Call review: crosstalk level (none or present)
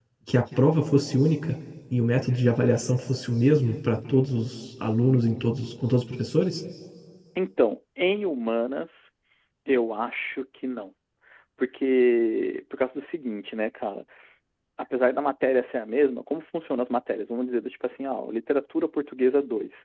none